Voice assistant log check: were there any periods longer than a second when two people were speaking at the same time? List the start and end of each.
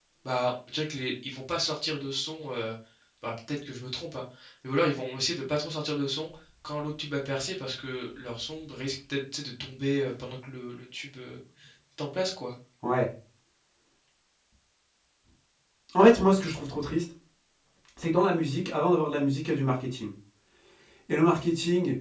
none

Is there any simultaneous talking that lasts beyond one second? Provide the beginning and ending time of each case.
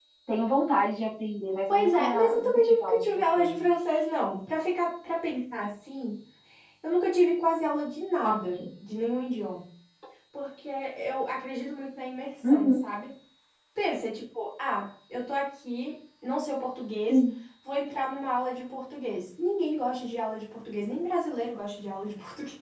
1.7-3.5

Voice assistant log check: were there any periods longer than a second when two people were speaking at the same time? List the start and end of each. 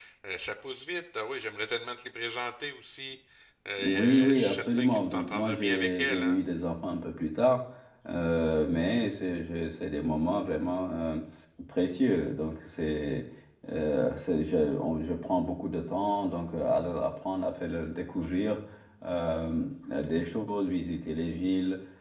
3.8-6.4

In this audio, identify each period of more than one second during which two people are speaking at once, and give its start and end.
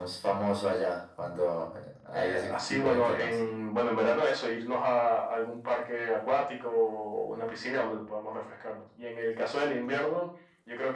2.2-3.4

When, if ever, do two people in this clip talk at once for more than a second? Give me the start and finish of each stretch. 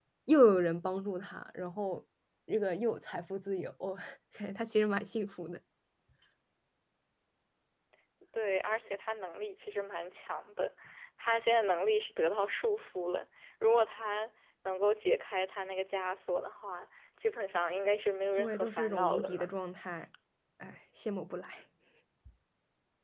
18.4-19.6

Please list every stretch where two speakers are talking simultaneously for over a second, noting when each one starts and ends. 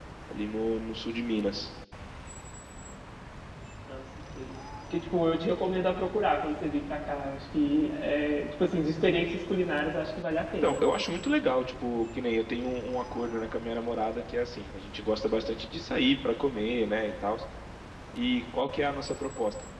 none

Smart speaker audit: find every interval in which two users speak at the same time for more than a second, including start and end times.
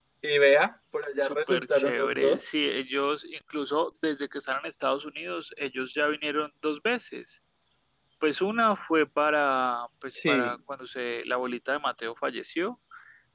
1.2-2.5

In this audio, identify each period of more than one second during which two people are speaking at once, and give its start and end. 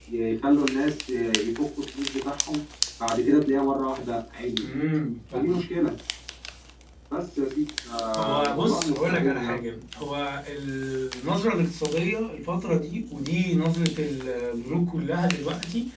8.1-9.6

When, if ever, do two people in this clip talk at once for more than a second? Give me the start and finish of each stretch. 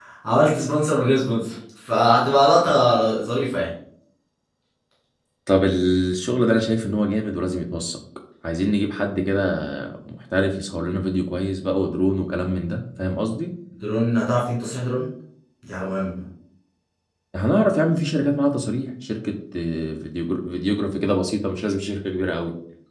none

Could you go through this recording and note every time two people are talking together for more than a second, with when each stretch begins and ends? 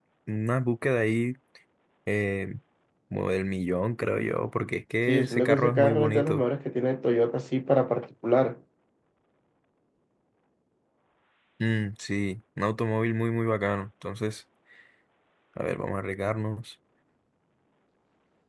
5.1-6.4

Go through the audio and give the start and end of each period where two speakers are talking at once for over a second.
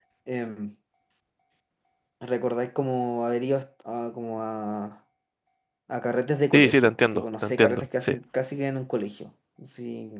6.5-8.1

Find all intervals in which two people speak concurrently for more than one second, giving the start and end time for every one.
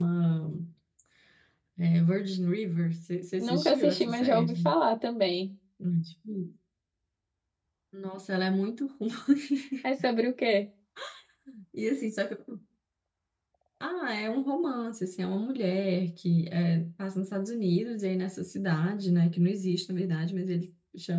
3.4-4.7

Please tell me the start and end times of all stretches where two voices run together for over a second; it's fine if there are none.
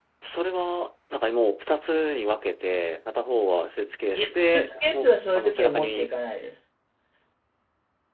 4.2-6.1

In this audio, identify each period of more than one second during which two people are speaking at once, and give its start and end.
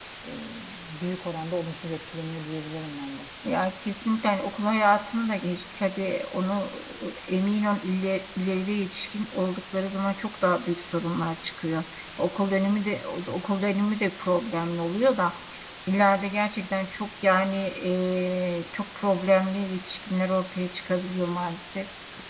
none

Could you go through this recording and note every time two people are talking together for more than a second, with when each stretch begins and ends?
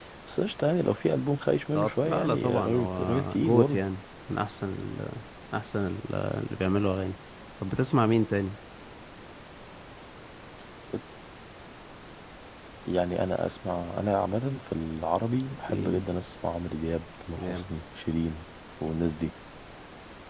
1.8-3.8

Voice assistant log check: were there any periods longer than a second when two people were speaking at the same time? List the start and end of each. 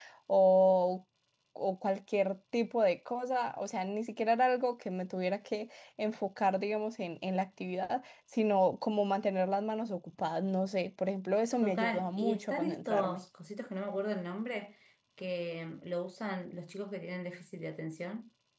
11.6-13.2

